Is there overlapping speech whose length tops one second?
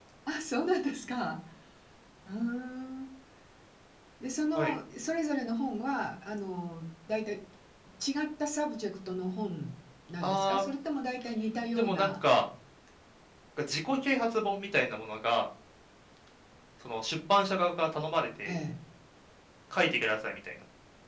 No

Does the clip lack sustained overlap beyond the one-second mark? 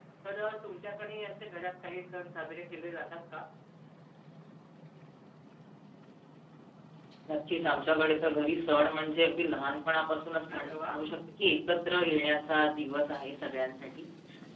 Yes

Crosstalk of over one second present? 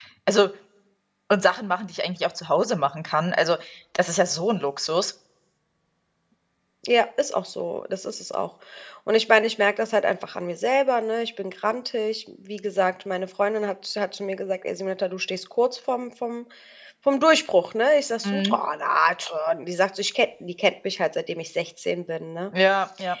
No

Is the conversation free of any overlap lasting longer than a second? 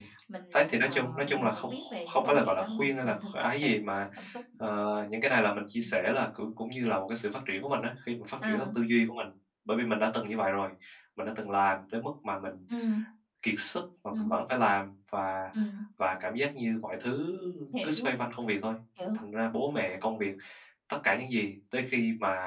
No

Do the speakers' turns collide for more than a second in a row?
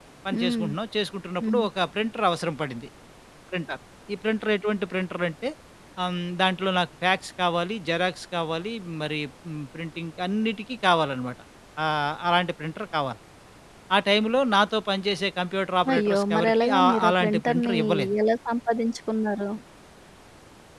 Yes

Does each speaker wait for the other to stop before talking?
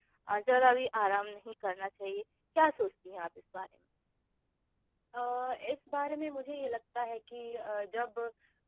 Yes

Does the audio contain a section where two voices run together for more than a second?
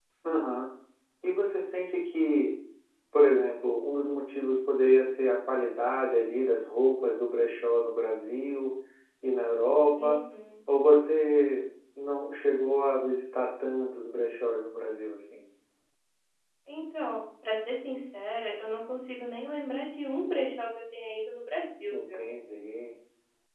No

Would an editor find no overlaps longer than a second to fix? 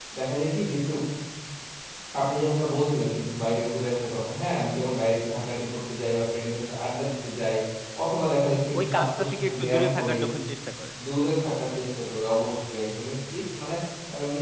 No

